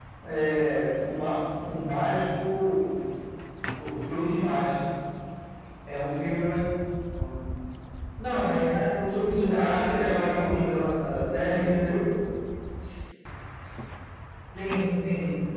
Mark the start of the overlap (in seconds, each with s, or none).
9.3 s